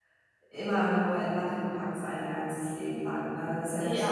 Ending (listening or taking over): listening